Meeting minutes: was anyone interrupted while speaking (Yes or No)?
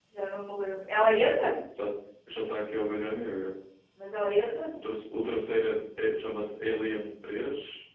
No